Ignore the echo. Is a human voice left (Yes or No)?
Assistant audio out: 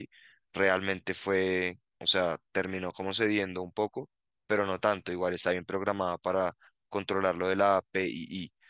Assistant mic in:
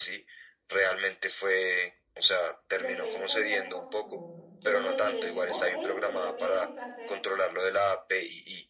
Yes